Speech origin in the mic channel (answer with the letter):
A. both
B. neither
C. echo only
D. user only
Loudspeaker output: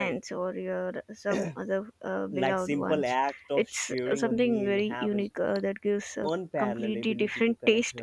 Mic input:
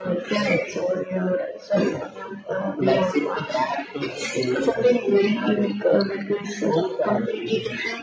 C